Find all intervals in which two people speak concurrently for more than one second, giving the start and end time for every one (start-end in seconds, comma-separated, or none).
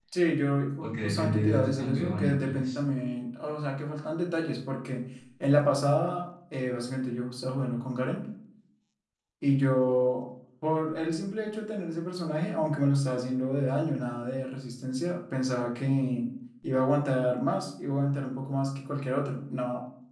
0.8-2.8